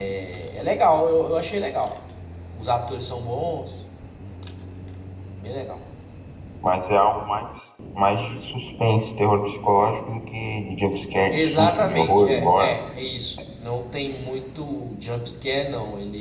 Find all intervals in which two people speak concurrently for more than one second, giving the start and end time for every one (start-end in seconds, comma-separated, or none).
11.3-12.7